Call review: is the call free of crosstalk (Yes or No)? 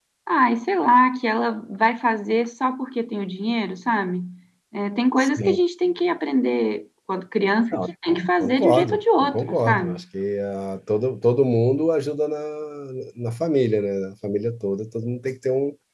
No